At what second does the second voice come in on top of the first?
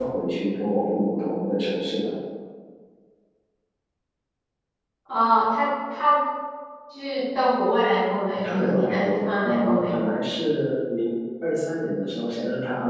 8.4 s

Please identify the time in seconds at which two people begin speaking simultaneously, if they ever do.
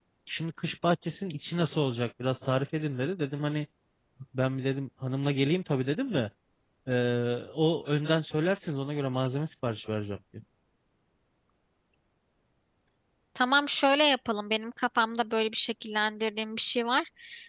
none

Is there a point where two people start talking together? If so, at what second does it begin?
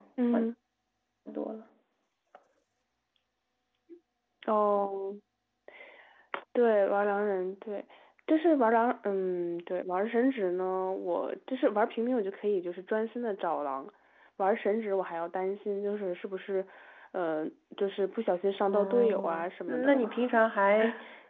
18.7 s

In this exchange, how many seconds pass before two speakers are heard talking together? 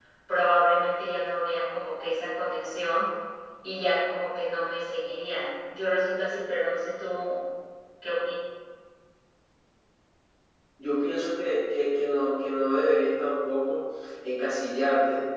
none

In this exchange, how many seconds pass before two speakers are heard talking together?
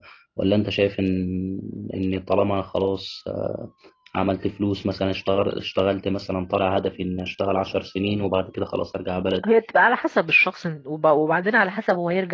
none

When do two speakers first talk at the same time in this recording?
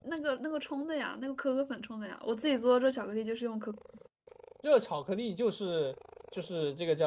none

